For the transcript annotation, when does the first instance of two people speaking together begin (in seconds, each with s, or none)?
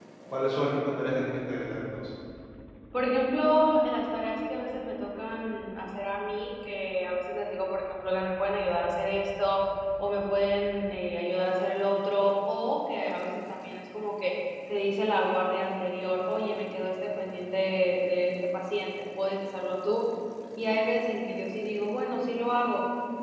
none